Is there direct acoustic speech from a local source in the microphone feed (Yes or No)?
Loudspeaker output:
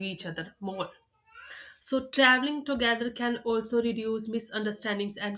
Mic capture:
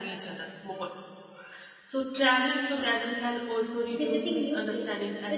Yes